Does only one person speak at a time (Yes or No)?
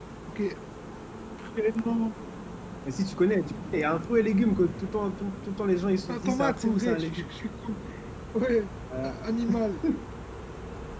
No